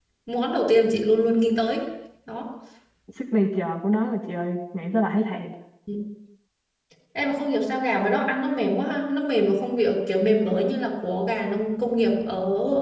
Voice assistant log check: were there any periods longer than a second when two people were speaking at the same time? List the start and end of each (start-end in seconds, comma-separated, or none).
none